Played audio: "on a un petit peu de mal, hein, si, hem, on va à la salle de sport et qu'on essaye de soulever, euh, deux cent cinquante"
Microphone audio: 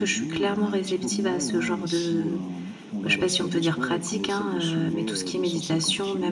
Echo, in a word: present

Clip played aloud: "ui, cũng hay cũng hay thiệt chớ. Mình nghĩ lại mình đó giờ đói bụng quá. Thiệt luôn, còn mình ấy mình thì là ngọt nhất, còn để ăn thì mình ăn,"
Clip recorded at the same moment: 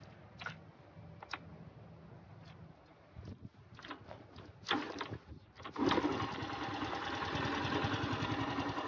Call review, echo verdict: none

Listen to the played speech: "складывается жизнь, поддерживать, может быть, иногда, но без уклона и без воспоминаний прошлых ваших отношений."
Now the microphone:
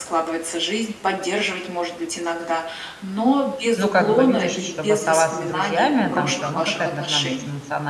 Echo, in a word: present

